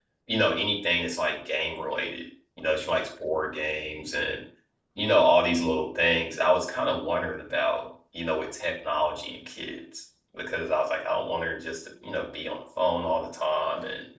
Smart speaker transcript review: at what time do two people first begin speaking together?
none

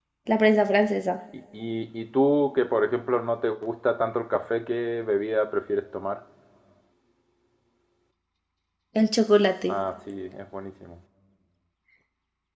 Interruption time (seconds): none

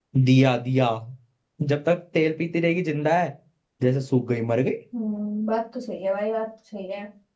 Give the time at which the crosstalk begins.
none

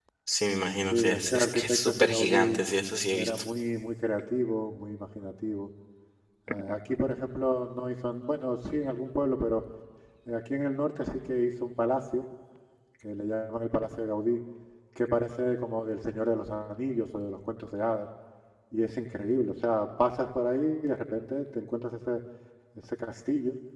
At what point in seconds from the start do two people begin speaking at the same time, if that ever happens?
0.9 s

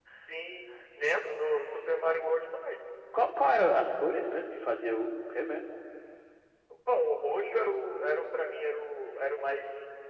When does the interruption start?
none

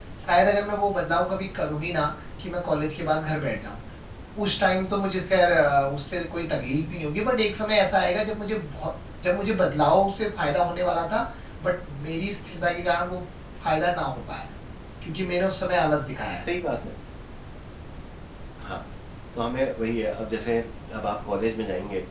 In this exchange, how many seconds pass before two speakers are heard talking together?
none

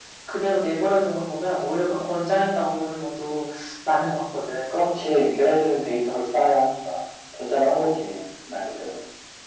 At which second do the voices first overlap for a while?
none

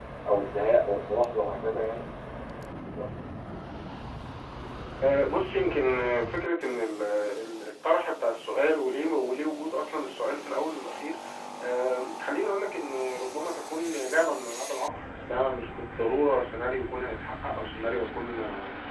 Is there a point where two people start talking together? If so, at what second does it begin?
none

